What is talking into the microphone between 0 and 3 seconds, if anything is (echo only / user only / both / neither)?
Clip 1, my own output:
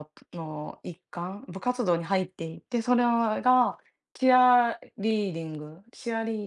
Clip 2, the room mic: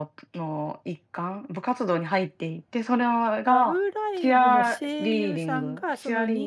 echo only